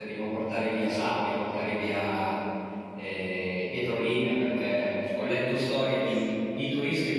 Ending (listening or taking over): listening